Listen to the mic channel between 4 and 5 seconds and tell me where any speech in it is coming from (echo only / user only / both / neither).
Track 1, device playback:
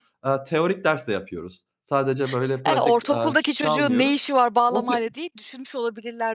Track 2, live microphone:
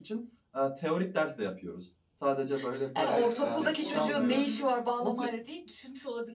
both